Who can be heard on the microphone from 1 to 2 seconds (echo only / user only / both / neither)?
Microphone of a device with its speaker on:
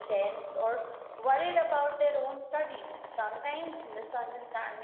echo only